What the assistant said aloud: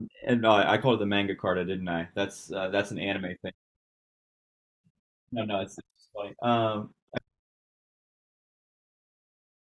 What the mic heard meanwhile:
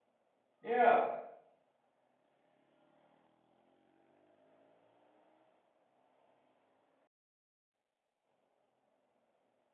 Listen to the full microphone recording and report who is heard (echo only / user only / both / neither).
user only